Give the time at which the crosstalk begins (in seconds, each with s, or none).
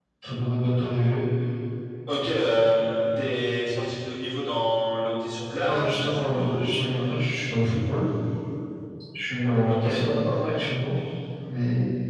5.7 s